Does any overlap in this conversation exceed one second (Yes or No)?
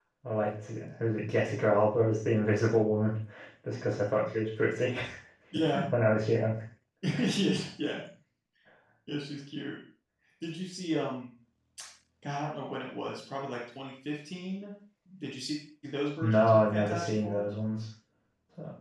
Yes